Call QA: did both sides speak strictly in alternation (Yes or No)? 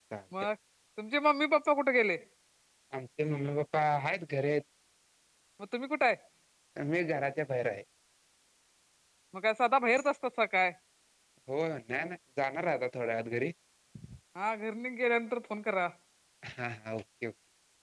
Yes